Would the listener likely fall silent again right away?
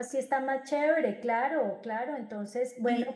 No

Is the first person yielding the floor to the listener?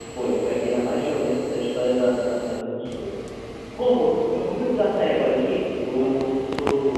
No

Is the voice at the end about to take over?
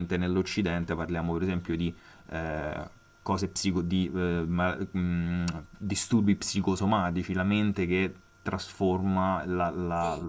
Yes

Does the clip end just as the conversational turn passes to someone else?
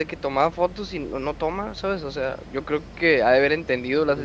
Yes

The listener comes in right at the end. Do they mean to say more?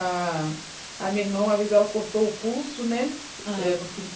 No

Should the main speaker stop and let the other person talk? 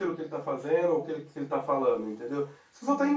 No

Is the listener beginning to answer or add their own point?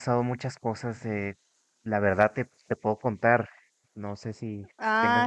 Yes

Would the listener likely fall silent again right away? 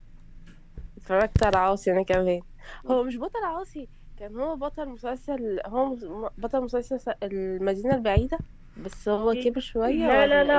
No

